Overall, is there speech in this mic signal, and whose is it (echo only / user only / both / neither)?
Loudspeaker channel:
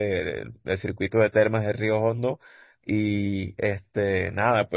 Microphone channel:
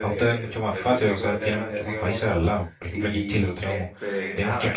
both